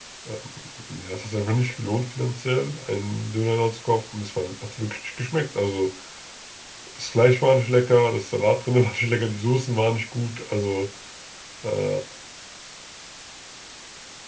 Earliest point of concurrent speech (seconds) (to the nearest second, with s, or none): none